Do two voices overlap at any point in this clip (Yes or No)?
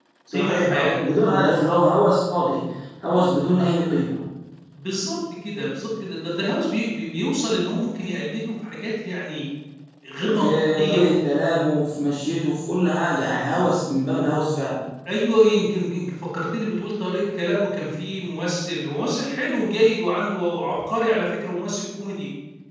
Yes